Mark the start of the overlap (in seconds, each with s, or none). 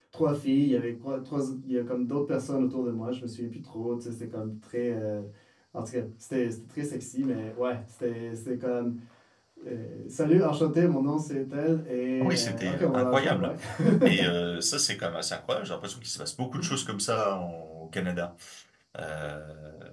12.2 s